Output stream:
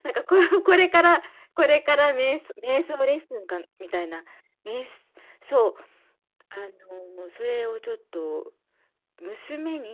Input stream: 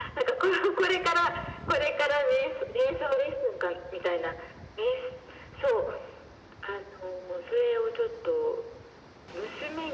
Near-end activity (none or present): none